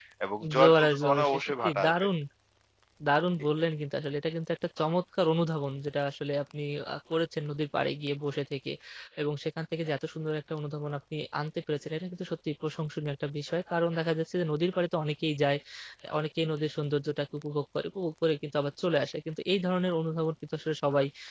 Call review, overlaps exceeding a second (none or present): present